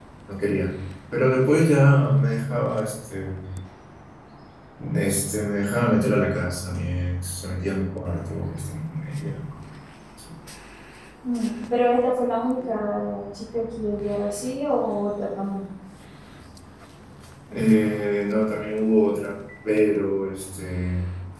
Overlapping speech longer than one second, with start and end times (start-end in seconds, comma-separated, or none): none